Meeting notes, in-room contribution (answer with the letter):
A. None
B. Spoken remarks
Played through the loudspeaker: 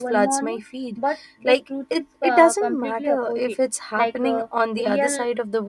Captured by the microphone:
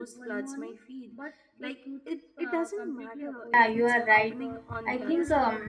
B